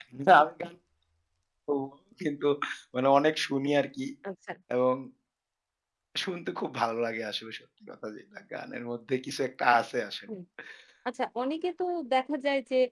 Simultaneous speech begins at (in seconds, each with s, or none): none